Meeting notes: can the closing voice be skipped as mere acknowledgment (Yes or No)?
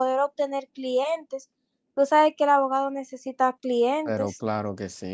No